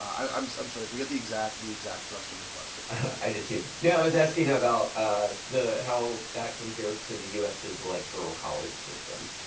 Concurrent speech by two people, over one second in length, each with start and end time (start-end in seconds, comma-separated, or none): none